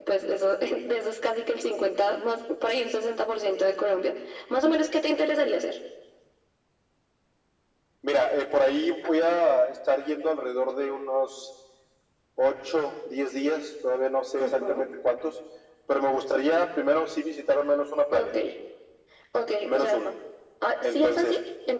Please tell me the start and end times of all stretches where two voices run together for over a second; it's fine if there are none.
none

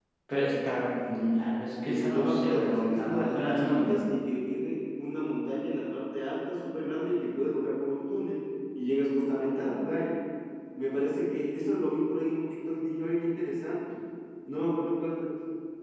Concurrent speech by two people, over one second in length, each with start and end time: 1.8-4.0

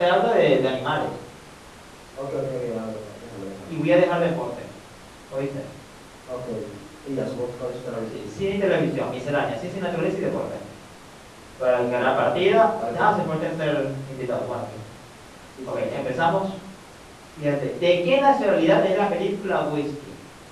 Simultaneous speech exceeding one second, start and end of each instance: 11.8-13.1

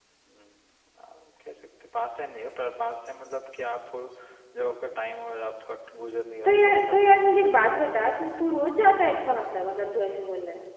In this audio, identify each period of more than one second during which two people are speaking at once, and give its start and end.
6.5-7.7

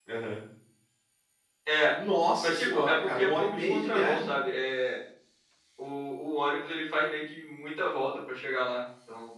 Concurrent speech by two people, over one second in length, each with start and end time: 2.4-4.3

